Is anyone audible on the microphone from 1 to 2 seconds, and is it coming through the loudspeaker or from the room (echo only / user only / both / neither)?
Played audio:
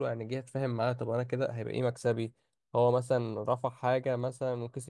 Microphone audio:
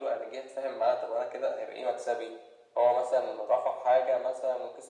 echo only